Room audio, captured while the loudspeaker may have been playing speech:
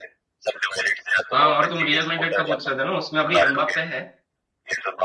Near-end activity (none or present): present